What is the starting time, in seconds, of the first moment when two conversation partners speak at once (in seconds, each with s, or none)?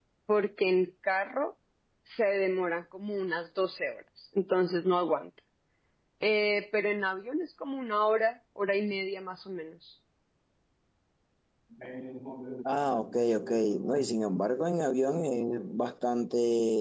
none